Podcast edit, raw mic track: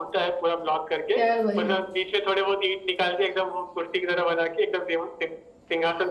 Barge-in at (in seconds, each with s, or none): 1.1 s